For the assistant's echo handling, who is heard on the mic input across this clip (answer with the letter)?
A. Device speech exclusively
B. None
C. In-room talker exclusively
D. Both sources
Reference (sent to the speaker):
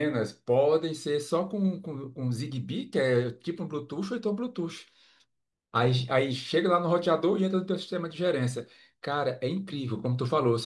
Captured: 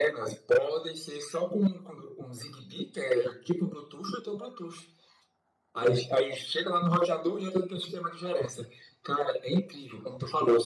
A